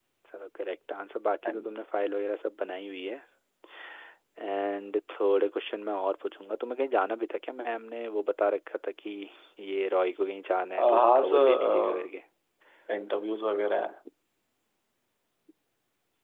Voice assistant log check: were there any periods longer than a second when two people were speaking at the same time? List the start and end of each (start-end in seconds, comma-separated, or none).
10.8-12.1